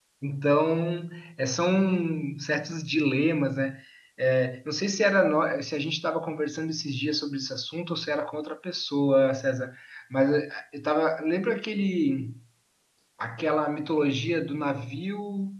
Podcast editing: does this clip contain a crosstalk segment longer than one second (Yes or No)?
No